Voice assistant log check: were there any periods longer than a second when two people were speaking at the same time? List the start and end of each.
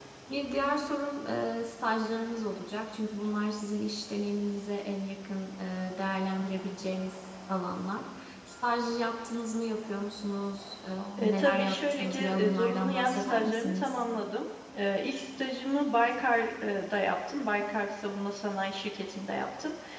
11.2-14.0

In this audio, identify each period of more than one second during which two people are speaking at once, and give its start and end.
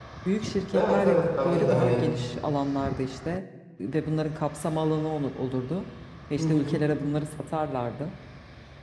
0.7-2.0

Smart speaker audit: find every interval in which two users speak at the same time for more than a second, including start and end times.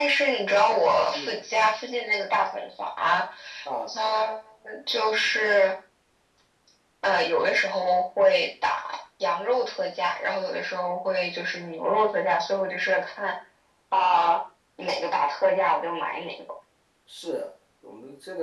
none

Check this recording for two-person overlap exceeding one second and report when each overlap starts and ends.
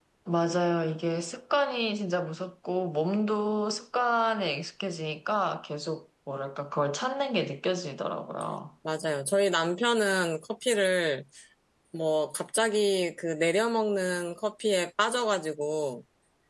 none

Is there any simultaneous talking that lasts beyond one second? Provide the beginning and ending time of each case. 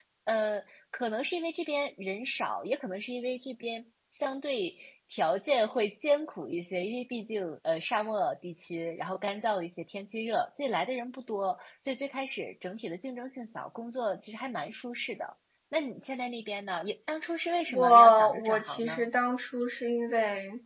17.7-19.1

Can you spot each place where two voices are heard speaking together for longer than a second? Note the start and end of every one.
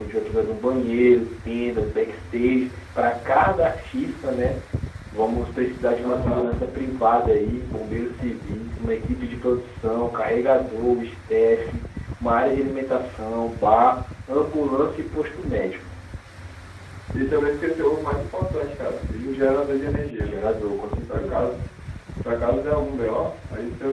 none

